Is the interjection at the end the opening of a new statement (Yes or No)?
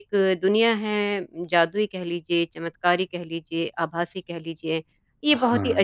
No